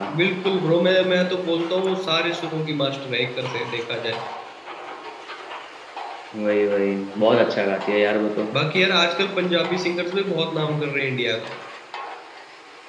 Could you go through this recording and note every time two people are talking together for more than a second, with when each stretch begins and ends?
none

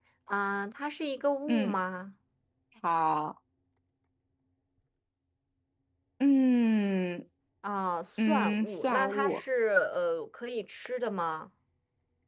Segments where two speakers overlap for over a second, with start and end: 8.2-9.4

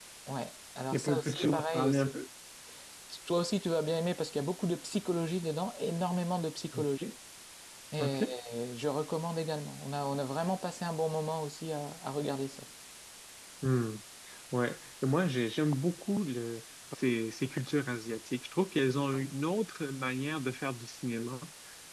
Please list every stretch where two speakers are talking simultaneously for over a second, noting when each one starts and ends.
0.9-2.1

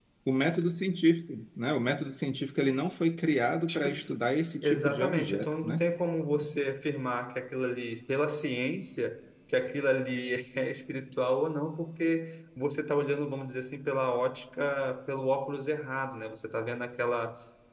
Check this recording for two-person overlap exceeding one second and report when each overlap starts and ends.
4.6-5.9

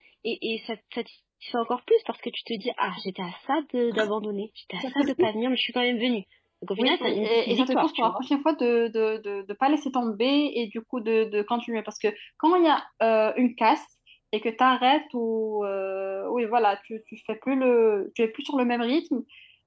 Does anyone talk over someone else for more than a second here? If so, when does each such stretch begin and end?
6.8-8.2

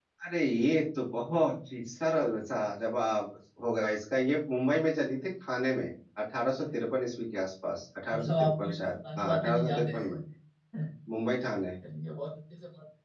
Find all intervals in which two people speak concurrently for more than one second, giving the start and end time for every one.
8.1-10.0

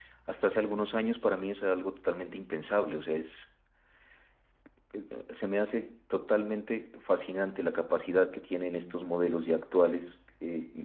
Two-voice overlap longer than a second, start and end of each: none

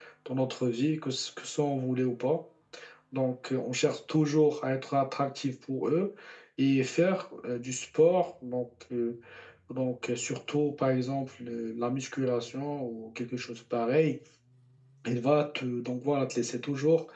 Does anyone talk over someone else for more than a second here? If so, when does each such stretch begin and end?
none

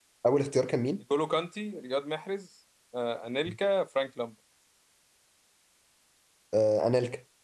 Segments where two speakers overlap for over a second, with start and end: none

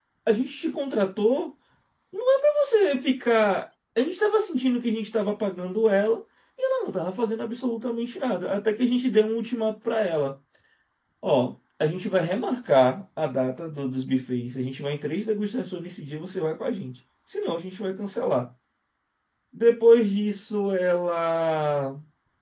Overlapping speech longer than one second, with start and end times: none

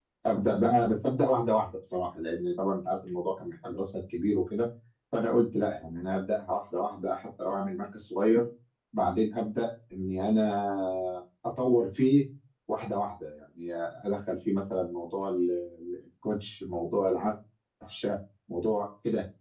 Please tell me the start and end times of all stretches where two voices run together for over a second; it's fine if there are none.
none

